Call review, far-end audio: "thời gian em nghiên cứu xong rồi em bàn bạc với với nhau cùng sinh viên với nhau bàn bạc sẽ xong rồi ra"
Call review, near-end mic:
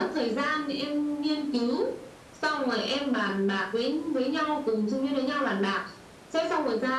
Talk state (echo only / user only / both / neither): echo only